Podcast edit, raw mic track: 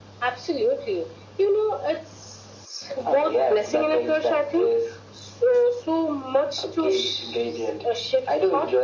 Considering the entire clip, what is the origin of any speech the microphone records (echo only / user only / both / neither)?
echo only